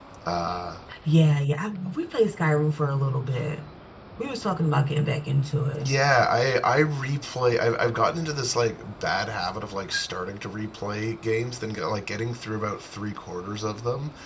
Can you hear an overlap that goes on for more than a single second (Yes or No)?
No